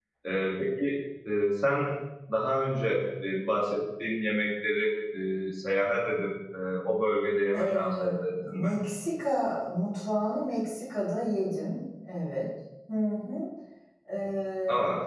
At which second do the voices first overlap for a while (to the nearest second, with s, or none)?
8 s